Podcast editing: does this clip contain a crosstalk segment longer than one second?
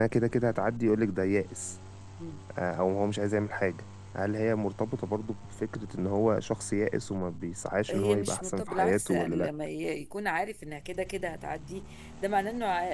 Yes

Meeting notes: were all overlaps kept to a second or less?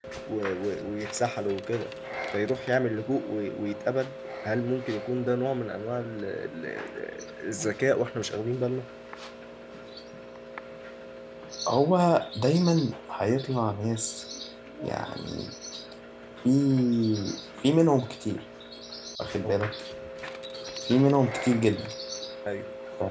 Yes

